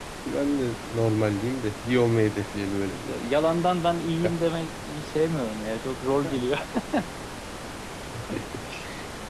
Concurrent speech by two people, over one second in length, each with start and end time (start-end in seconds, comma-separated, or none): none